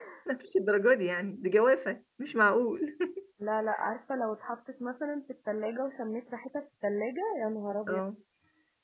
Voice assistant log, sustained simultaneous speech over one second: none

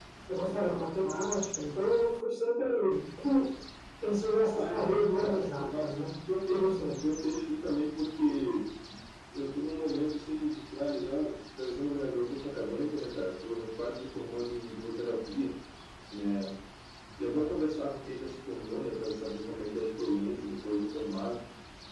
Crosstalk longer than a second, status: present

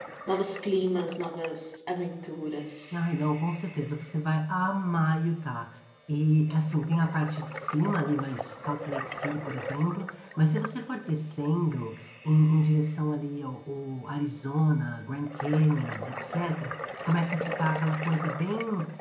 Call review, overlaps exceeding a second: none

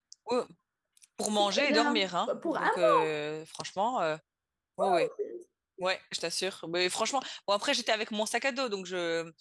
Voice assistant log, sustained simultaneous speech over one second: present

